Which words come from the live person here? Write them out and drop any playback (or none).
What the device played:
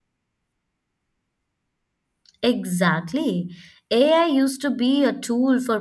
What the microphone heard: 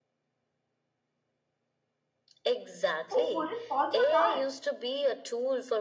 Who wouldn't fall for that?